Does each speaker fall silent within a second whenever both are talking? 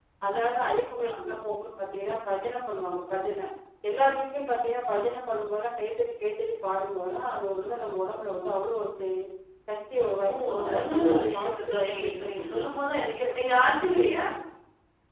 No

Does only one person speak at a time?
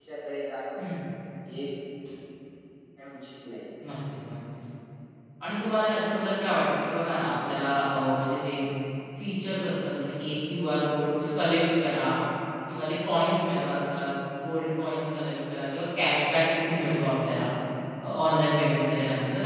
Yes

